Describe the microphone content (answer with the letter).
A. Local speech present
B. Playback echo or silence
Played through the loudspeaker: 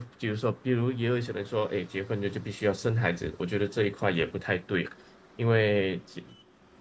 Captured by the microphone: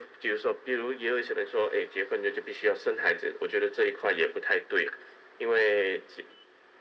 B